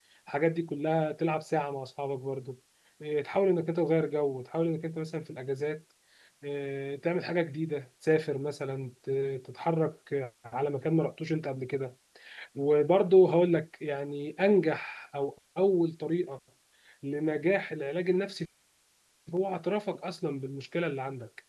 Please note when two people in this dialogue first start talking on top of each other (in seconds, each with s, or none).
none